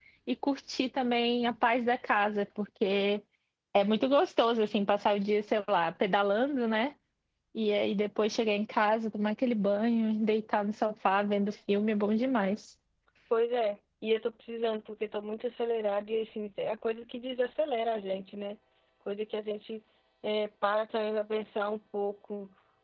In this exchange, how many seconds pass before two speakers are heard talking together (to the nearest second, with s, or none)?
none